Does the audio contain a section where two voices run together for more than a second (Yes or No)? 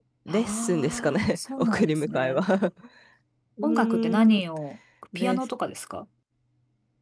Yes